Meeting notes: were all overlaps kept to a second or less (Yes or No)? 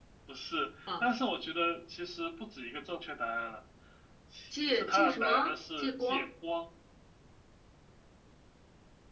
No